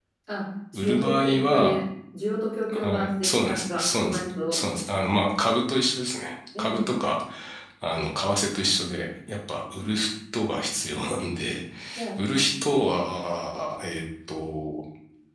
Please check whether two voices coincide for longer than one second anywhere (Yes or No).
Yes